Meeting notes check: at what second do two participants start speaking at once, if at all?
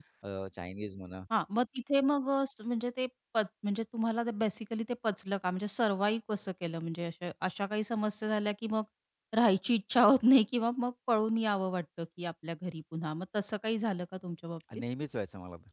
none

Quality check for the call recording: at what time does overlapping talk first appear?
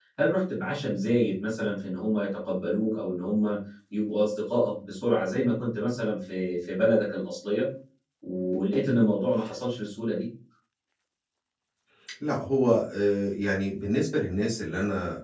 none

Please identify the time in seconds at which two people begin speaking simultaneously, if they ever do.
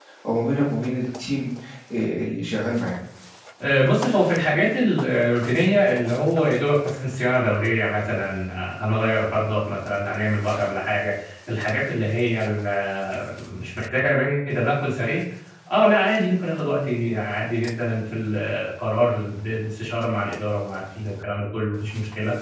none

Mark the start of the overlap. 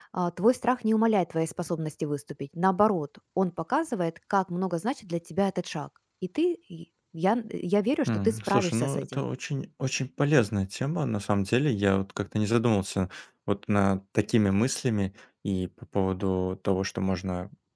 8.1 s

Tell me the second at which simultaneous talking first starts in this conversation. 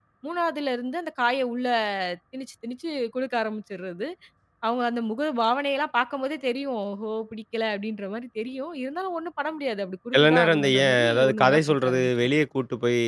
10.1 s

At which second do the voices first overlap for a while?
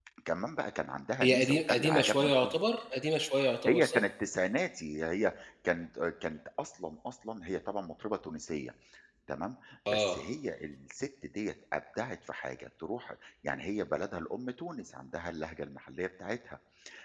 1.2 s

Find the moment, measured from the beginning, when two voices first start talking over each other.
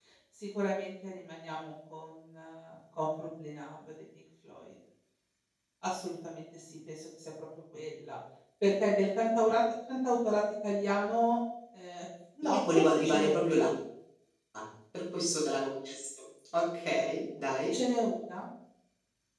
12.4 s

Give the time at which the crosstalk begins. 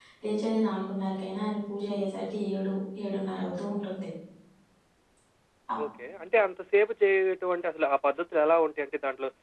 none

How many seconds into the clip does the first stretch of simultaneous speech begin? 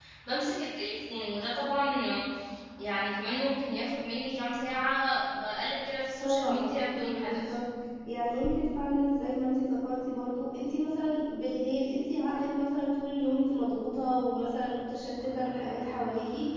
6.2 s

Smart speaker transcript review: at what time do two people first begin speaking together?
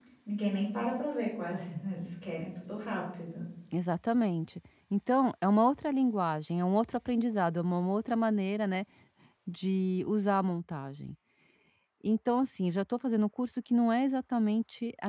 none

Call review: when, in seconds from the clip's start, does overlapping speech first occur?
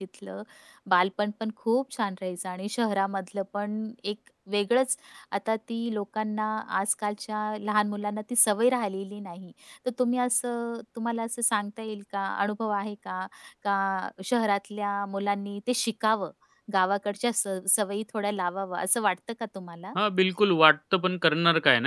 none

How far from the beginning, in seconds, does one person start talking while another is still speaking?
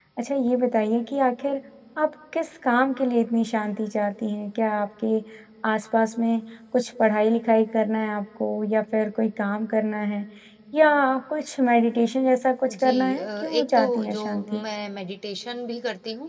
12.6 s

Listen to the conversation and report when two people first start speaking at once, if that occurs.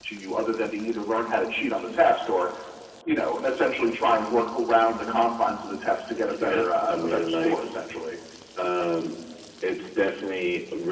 6.2 s

